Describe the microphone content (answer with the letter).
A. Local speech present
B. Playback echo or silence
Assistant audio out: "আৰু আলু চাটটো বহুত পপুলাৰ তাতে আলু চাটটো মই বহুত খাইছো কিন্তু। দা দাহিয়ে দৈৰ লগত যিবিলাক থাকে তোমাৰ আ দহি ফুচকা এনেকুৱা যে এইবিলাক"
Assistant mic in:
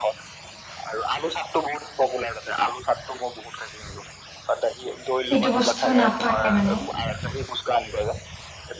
A